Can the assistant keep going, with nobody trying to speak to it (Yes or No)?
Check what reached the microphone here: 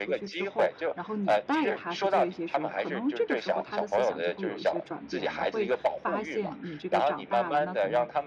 No